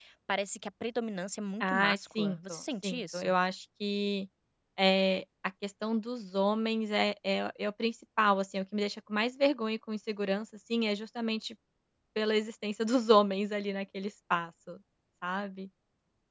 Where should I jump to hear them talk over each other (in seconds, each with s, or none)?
1.6 s